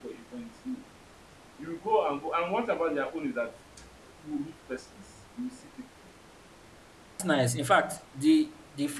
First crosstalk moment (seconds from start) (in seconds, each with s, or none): none